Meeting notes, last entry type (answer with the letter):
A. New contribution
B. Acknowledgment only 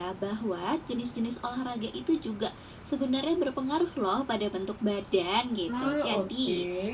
B